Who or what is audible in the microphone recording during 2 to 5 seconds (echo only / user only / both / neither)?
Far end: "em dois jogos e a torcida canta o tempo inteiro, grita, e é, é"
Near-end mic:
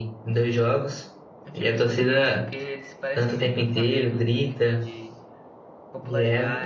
both